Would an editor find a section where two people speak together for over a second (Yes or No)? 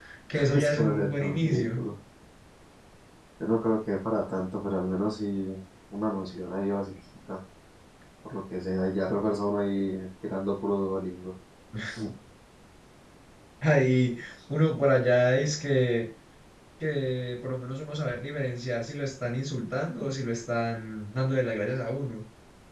Yes